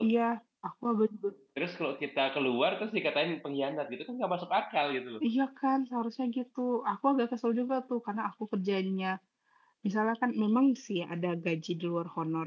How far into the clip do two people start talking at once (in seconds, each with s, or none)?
none